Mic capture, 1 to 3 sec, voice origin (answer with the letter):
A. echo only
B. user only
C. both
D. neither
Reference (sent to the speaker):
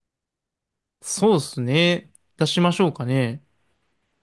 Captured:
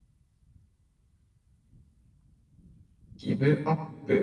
D